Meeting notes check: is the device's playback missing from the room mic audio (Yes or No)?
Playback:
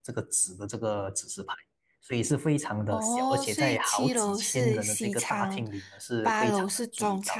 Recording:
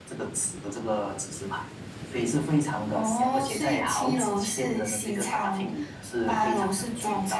No